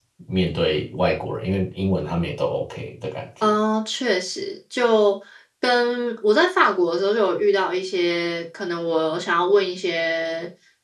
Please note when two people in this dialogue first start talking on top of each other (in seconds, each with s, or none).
none